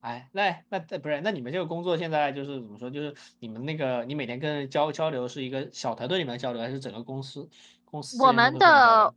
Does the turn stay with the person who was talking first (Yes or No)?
No